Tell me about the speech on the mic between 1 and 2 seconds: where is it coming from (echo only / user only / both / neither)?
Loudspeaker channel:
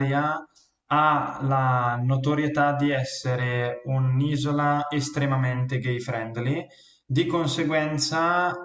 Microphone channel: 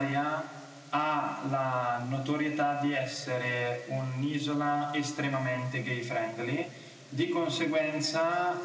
echo only